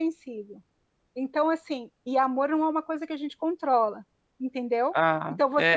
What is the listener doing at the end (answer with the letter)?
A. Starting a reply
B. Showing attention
B